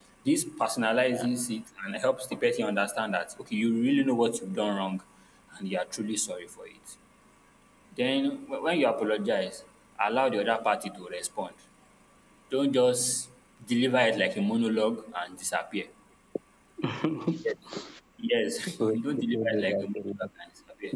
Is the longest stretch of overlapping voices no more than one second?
No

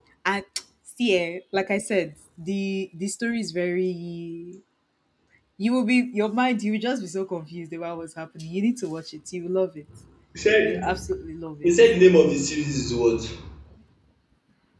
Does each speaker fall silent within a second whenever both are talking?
Yes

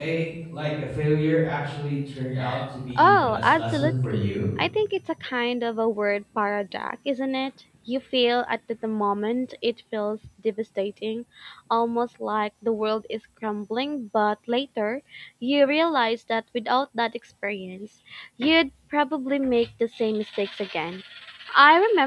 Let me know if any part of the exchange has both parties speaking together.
Yes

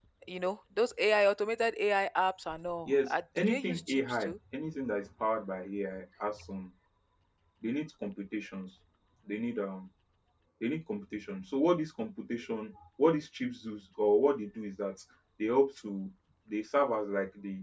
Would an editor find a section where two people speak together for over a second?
Yes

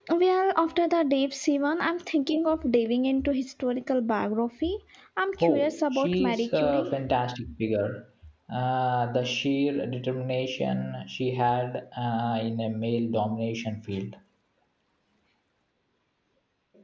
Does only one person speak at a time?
No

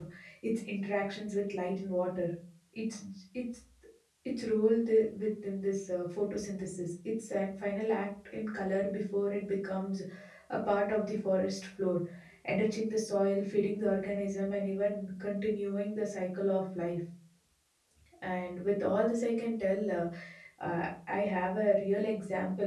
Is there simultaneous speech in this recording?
No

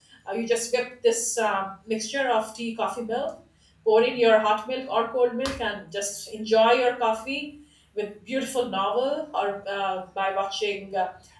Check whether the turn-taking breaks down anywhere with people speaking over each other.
No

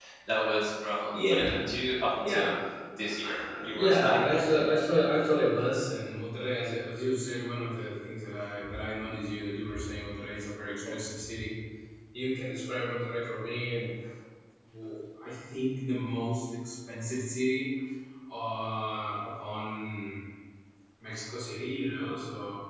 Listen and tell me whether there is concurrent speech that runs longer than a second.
Yes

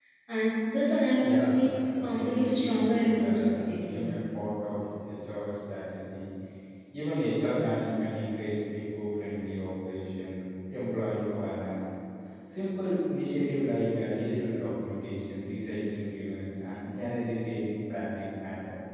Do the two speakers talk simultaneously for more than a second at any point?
Yes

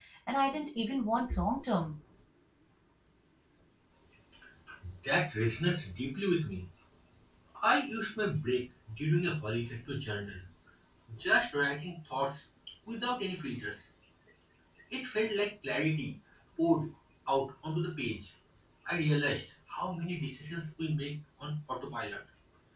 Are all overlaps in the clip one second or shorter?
Yes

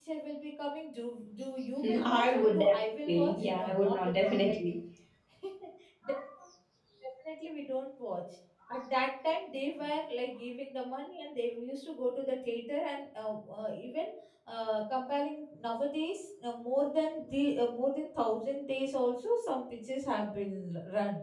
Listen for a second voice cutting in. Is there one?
Yes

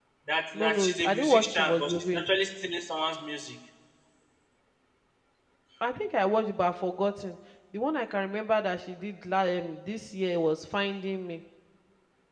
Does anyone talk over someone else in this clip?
Yes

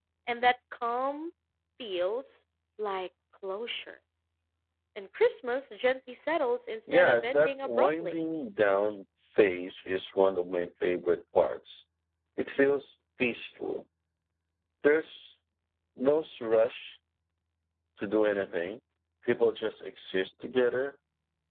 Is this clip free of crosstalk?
No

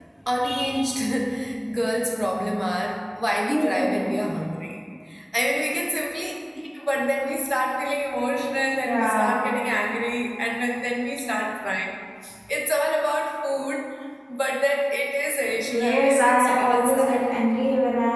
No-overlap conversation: No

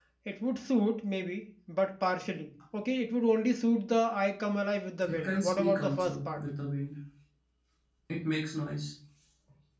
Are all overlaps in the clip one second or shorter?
No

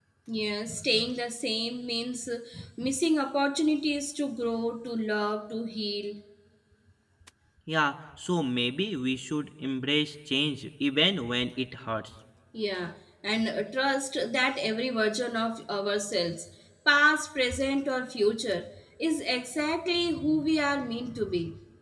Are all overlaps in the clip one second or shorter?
Yes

